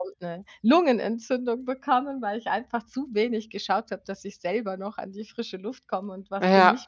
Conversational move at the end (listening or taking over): taking over